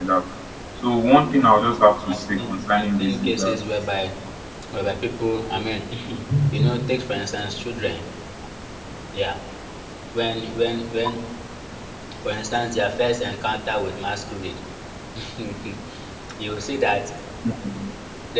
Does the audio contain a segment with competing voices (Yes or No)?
Yes